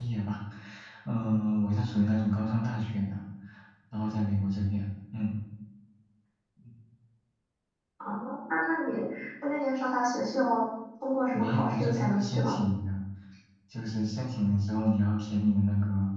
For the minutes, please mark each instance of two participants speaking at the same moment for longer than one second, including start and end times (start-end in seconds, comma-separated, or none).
11.3-12.6